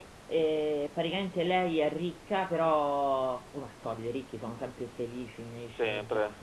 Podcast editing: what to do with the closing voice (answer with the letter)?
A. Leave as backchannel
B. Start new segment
A